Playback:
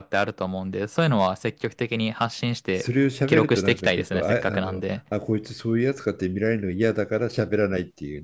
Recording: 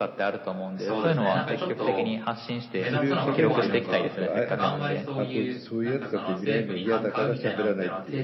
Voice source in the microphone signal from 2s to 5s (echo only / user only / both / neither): both